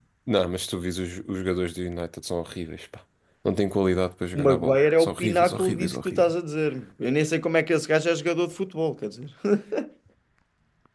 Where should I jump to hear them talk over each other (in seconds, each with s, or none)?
4.3 s